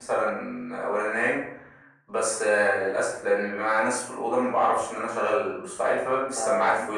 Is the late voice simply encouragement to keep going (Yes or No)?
Yes